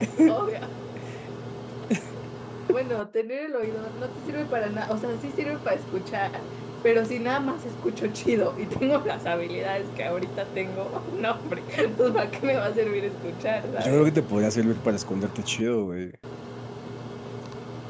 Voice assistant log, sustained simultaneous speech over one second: none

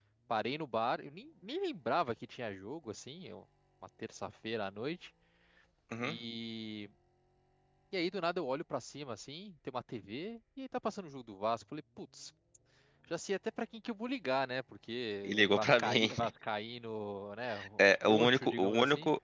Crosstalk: present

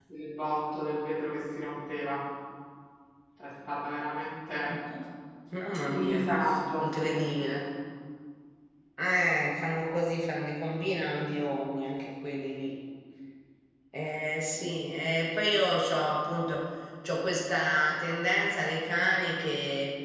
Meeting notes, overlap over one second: none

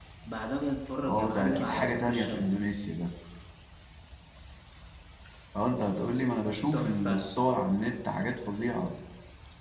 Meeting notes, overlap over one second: present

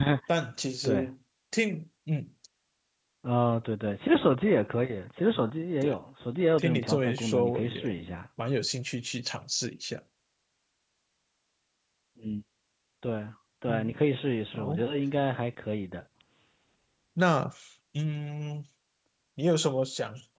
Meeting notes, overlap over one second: present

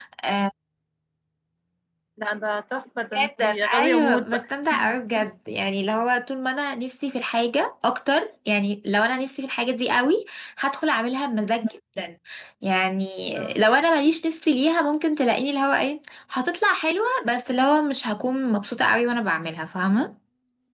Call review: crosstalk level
present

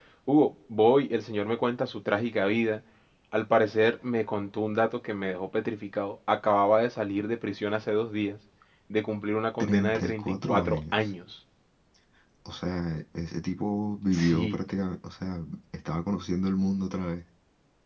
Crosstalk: present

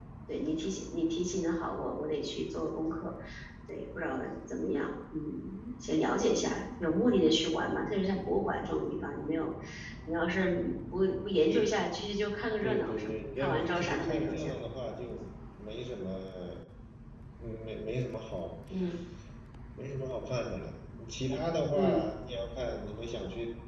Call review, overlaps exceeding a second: present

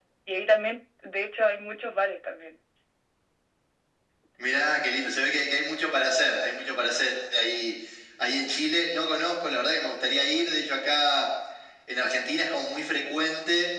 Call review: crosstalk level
none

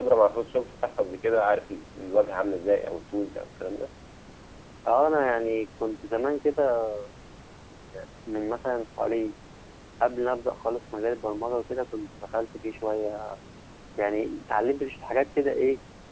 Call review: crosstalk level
none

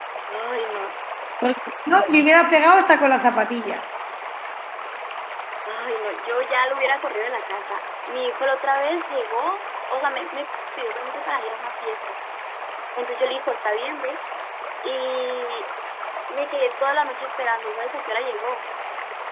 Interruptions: none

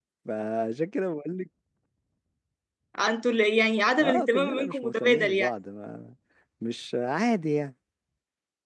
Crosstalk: present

